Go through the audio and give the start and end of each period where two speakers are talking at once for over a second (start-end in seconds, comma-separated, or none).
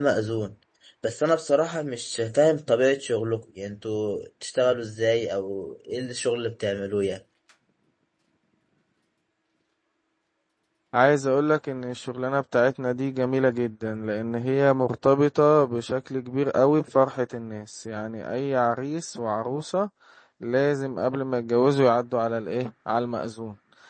none